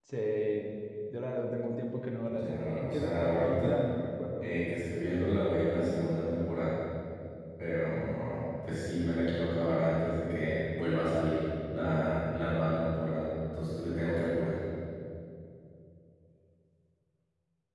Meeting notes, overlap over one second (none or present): present